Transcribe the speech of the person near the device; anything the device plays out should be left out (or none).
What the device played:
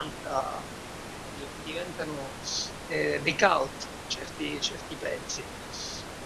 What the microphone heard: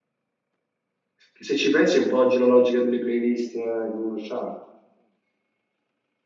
Che se ci pensi è un po' oggi la logica delle playlist eh, che uno ha.